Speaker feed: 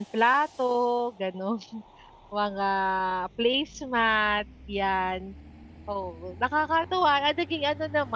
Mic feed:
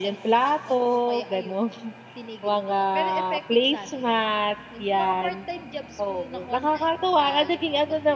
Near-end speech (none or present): present